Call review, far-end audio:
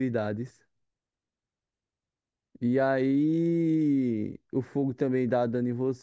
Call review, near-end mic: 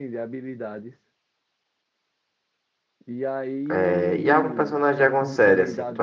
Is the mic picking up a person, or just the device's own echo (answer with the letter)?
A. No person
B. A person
B